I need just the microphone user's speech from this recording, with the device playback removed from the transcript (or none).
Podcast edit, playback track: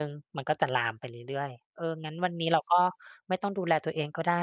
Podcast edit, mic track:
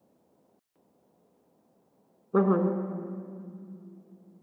อือฮึ